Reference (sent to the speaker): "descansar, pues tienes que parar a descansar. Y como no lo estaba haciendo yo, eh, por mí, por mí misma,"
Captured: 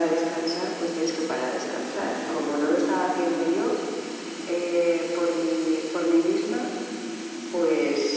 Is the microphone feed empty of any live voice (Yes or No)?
Yes